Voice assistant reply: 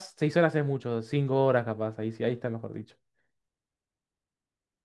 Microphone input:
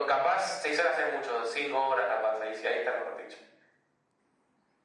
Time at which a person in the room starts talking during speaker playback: none

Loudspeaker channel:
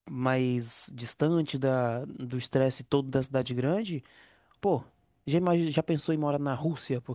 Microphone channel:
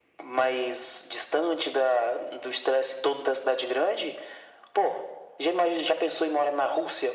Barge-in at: none

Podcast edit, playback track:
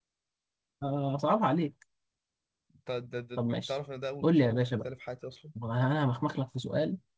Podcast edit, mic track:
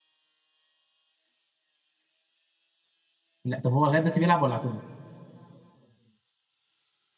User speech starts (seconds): 3.4 s

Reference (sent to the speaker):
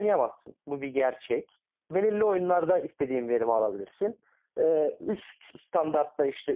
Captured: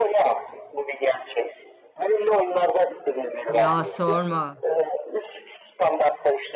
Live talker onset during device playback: 3.5 s

